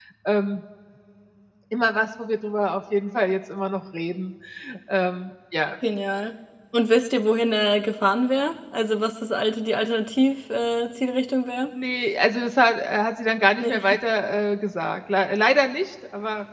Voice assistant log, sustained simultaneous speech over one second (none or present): none